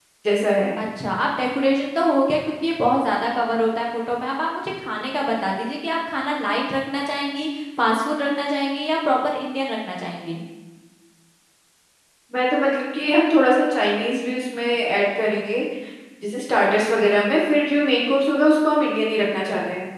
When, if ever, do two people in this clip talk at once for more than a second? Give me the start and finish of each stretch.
none

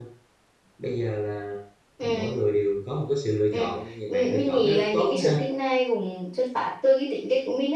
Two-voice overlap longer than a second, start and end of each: 4.1-5.4

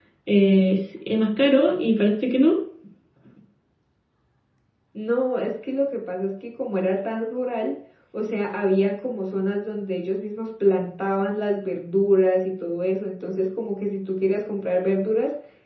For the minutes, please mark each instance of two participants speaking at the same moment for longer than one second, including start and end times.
none

